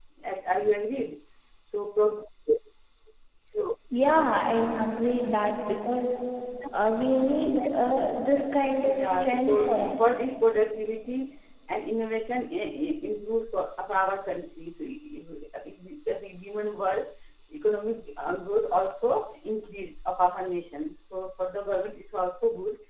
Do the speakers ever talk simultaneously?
Yes, from 8.8 s

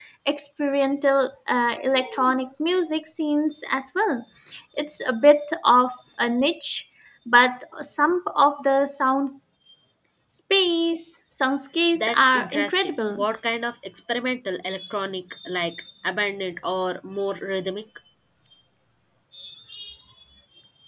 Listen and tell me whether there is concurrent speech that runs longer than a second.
Yes, from 11.9 s

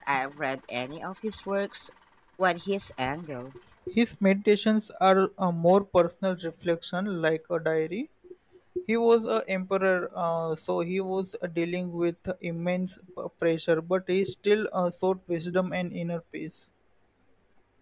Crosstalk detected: No

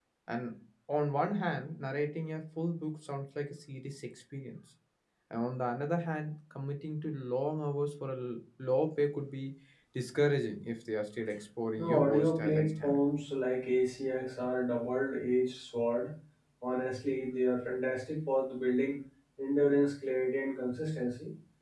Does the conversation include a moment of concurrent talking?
Yes, from 11.8 s

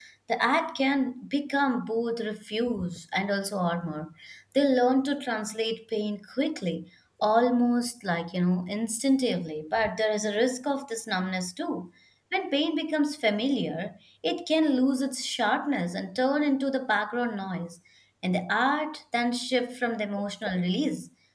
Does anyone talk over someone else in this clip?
No

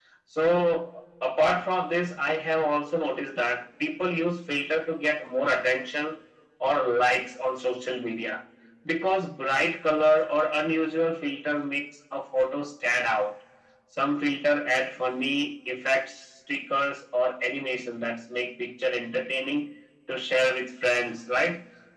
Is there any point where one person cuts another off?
No

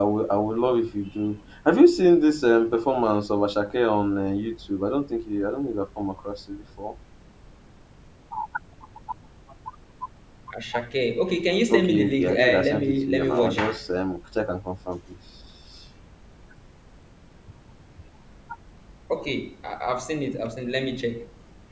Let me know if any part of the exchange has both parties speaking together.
Yes, from 11.7 s

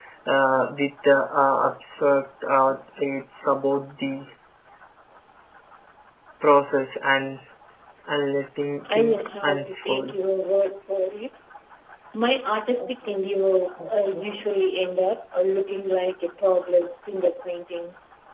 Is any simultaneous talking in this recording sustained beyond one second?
Yes, from 8.9 s

